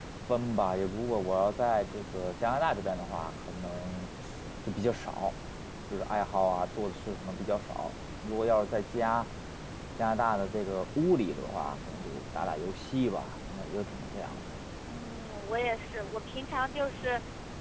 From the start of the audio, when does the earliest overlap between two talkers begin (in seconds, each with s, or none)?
none